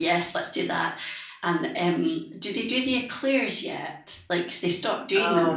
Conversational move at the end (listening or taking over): taking over